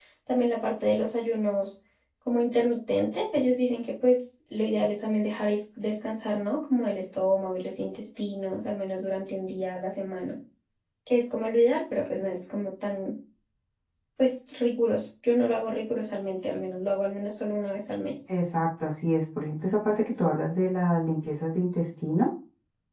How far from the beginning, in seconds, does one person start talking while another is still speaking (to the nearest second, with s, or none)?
none